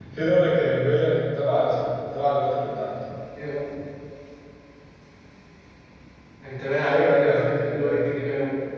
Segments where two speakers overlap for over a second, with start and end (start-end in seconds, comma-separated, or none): 6.8-8.1